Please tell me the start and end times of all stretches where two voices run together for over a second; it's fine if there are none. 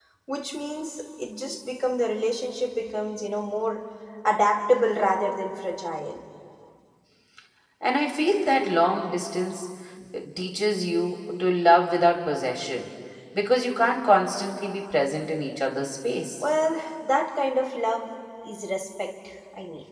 none

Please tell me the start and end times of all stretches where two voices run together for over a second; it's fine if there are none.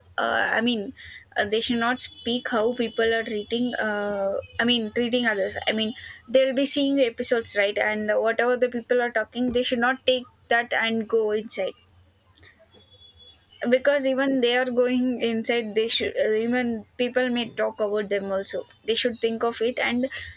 none

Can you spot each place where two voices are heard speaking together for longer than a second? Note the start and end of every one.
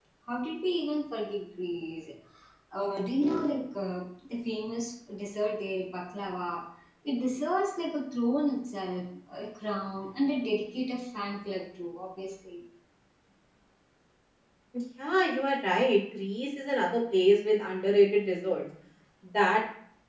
none

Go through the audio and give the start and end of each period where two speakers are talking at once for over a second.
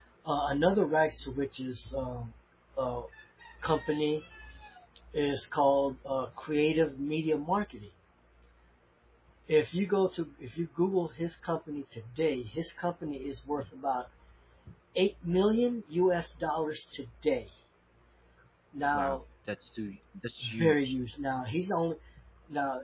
none

